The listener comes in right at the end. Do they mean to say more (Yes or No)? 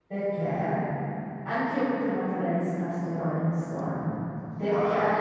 No